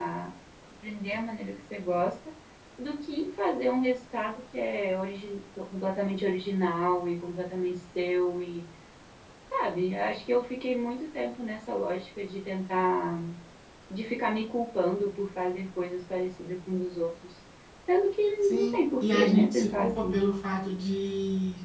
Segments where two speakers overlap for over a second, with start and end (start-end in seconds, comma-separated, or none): 18.4-20.2